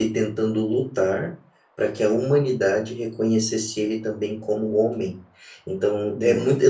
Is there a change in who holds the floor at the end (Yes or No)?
No